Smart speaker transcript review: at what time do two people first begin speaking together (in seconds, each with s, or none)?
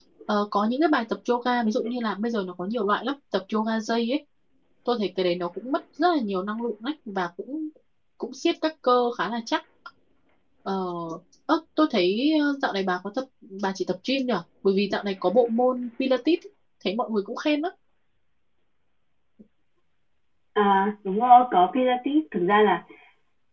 none